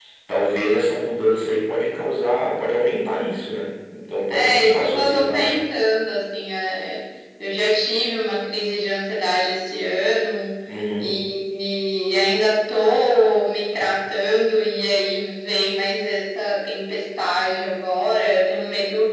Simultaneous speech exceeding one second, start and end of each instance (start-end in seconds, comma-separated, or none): 4.3-5.6